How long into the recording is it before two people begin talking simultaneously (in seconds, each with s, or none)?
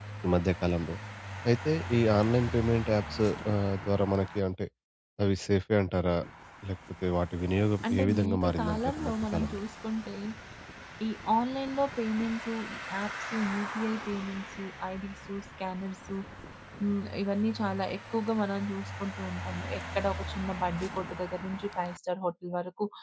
7.8 s